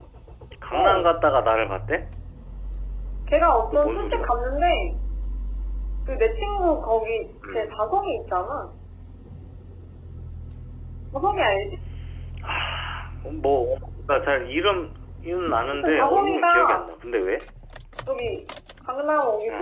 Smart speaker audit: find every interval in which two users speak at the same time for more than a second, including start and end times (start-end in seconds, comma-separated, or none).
15.7-16.9